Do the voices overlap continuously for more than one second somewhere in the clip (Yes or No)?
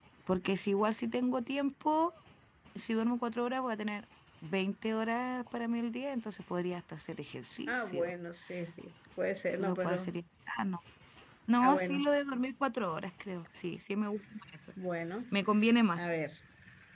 No